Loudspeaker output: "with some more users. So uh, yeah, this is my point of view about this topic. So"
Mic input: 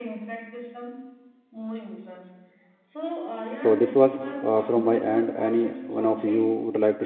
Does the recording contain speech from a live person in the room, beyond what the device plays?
Yes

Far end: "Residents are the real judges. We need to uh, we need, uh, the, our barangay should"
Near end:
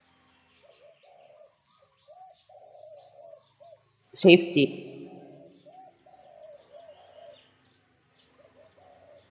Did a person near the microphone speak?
Yes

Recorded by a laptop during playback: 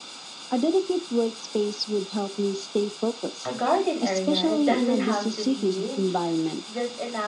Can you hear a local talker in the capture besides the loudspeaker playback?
Yes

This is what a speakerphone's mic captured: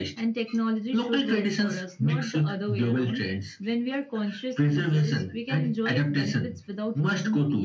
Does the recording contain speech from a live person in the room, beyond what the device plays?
No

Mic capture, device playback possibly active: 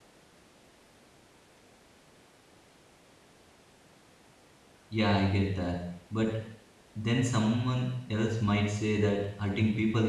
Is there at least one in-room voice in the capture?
Yes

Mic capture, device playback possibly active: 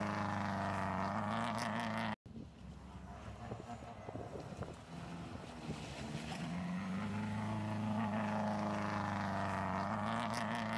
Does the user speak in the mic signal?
No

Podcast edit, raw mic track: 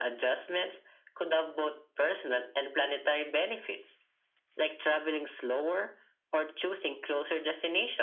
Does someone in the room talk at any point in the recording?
No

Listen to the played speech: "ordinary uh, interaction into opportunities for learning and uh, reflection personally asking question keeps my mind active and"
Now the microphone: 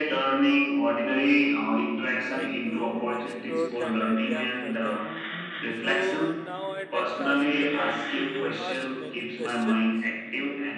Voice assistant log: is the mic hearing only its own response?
No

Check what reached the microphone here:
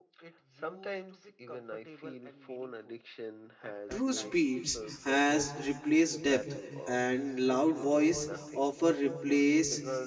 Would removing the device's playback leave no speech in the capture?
No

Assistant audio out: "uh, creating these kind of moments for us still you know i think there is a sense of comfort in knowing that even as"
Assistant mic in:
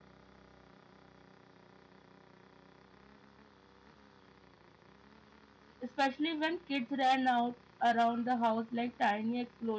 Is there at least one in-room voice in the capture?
Yes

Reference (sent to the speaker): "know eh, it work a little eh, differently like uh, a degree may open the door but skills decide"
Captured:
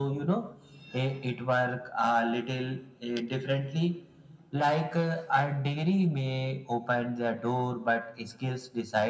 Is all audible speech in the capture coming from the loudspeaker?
Yes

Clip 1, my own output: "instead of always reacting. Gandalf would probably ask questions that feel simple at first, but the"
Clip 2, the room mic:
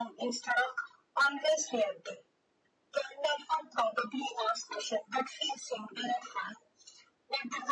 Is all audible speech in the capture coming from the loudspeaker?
Yes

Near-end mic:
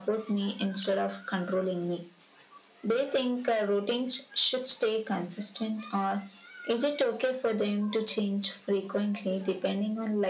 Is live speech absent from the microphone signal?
Yes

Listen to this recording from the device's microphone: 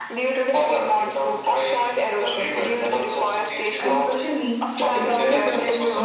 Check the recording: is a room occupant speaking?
Yes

